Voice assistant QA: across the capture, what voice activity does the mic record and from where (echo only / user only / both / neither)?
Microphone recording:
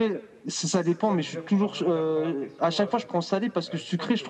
both